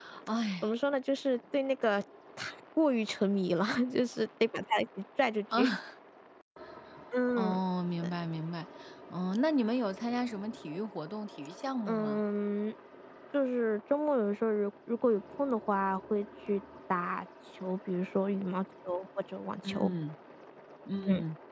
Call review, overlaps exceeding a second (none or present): none